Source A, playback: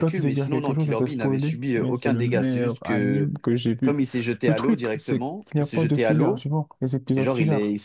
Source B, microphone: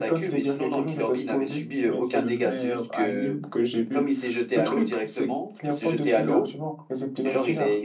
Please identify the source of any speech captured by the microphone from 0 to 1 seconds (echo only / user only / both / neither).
echo only